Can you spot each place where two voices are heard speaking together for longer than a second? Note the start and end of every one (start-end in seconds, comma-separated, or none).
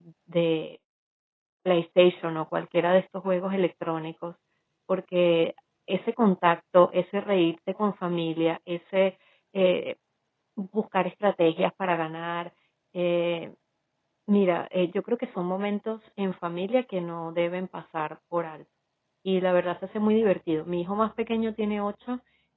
none